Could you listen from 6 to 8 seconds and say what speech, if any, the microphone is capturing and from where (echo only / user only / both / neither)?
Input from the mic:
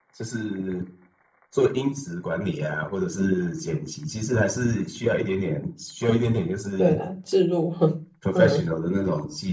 both